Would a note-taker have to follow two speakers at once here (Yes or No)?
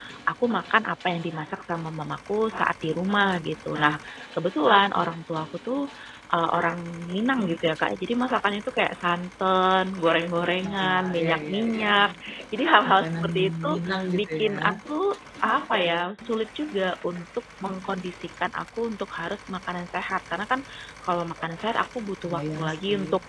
Yes